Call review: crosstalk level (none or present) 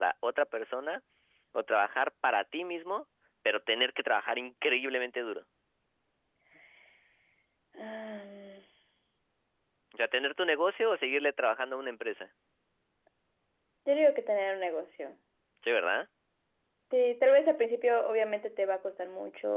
none